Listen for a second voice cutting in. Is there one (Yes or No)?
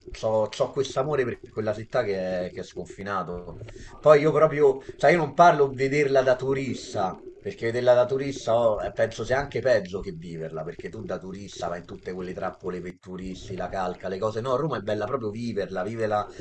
No